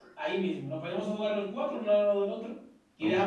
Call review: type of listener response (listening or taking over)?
listening